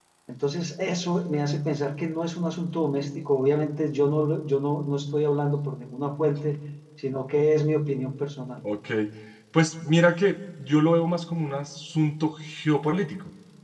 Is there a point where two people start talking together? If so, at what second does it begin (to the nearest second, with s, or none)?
none